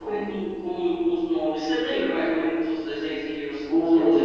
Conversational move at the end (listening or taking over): taking over